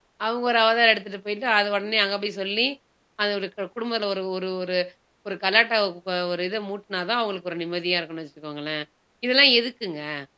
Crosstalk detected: No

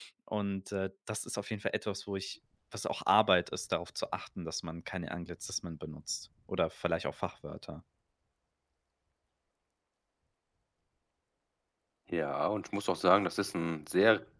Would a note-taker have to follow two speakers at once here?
No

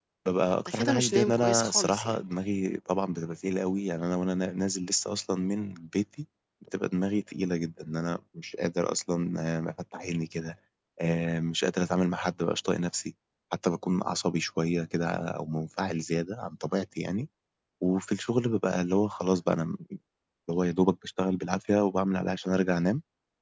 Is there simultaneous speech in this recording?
Yes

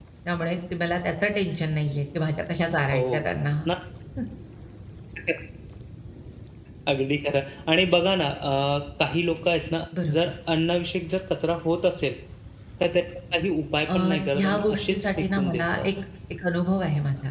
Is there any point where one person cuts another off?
Yes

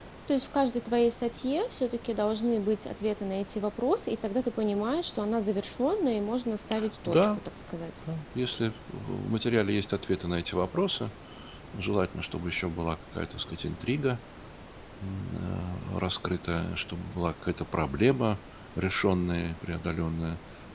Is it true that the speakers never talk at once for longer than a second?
Yes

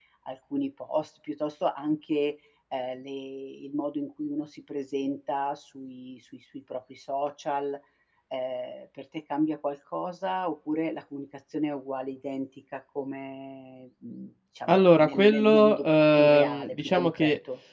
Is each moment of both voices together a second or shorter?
No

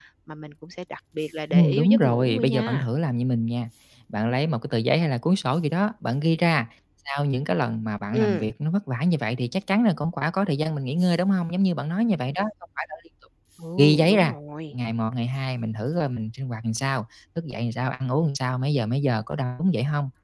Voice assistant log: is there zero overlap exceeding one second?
No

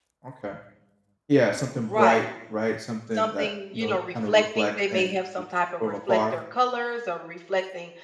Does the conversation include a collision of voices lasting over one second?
Yes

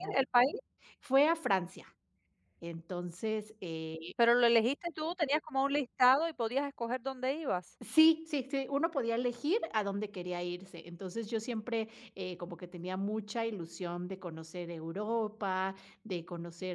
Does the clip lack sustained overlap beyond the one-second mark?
Yes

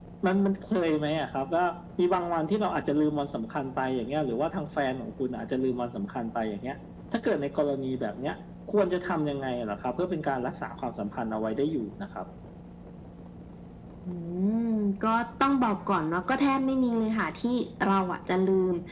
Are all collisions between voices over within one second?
Yes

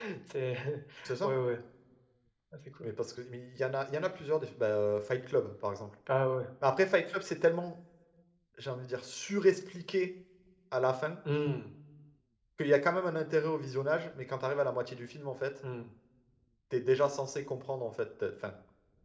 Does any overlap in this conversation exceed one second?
No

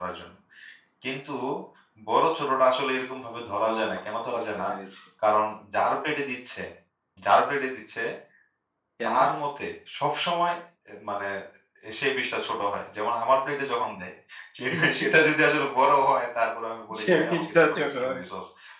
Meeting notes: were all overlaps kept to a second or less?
No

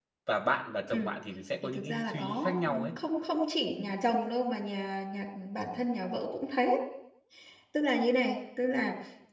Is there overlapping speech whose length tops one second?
Yes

